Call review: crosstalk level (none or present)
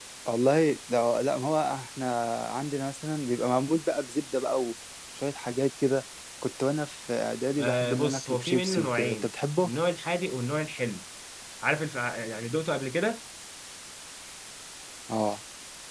present